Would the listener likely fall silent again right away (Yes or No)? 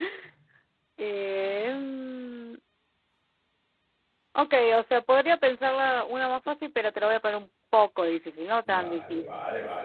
No